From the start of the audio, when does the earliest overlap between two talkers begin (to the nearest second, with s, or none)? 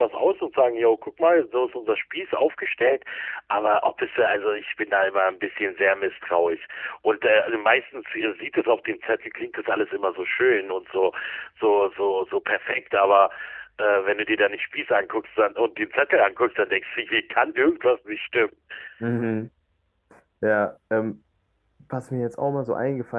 none